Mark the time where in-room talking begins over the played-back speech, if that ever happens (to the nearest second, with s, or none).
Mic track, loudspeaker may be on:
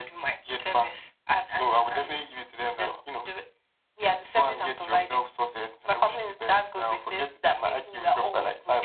none